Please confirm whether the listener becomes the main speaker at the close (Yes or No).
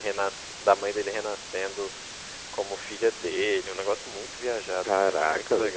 Yes